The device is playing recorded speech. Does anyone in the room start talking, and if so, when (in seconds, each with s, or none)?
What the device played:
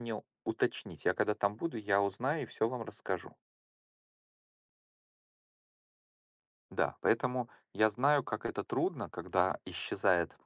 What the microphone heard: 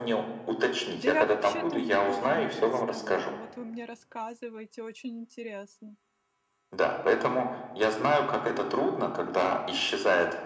1.0 s